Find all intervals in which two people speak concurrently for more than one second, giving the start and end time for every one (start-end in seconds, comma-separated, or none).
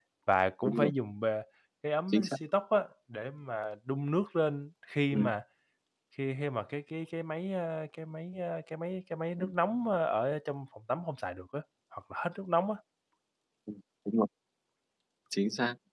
none